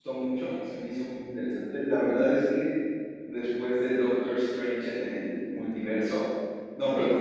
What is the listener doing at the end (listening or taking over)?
listening